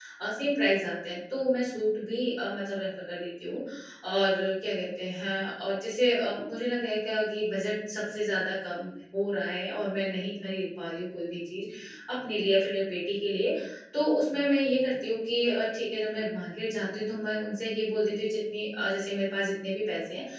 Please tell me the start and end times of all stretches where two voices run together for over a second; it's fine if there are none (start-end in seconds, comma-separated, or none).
none